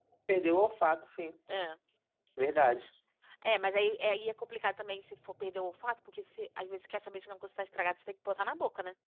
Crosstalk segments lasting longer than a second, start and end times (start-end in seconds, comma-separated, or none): none